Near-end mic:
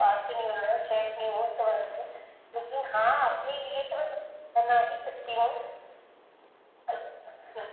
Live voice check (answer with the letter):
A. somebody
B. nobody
B